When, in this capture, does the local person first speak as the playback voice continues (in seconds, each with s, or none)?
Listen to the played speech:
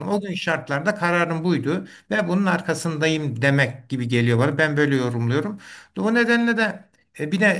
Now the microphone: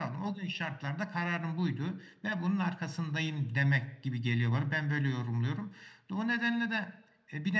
none